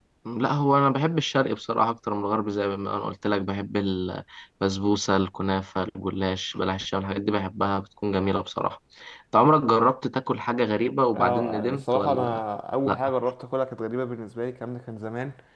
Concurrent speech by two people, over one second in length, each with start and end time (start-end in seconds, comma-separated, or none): 11.1-12.4